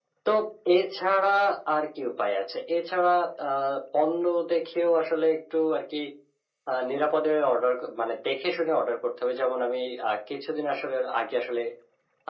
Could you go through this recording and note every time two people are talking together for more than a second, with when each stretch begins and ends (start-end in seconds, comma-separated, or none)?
none